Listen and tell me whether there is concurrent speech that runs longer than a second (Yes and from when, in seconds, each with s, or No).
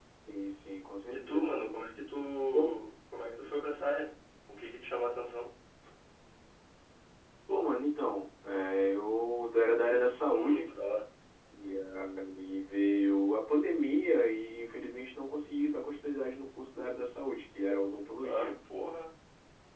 No